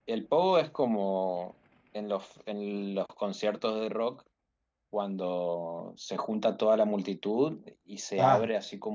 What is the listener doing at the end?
listening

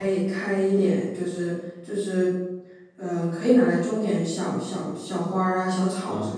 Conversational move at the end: taking over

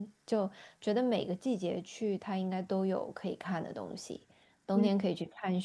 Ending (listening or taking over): listening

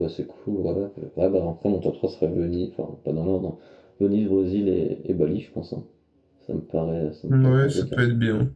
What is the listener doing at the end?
taking over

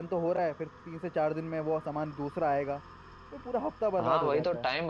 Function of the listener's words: taking over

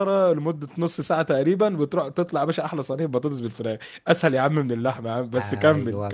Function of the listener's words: taking over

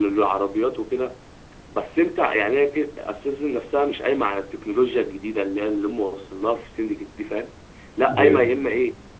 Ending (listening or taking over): listening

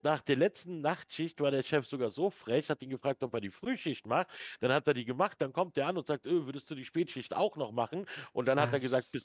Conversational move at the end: listening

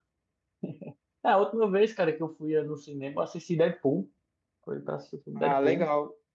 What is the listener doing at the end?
taking over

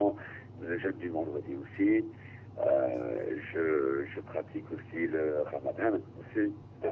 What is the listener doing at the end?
listening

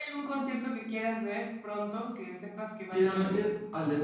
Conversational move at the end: taking over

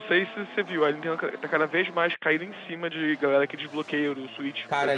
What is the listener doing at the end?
taking over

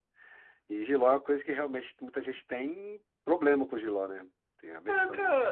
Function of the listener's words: taking over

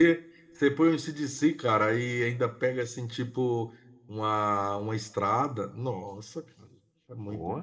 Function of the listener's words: taking over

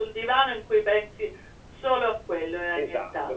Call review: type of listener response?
taking over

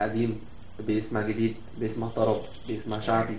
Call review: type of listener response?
listening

